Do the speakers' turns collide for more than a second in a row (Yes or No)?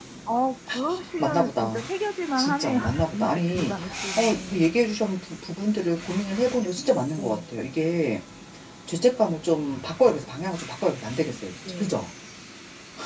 Yes